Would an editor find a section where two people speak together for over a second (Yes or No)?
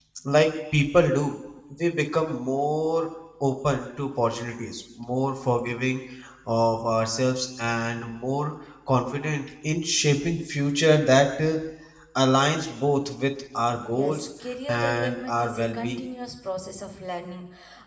Yes